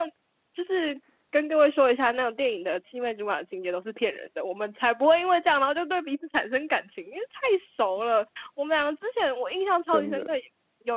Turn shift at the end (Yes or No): No